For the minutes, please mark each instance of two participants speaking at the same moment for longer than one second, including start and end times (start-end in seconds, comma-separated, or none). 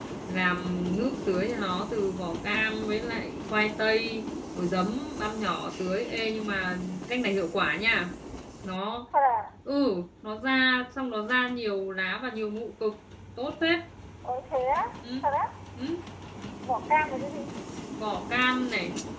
none